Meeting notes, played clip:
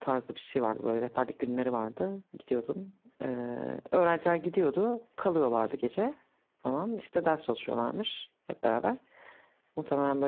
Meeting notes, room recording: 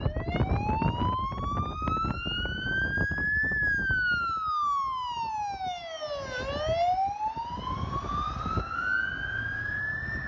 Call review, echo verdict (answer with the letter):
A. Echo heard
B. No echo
B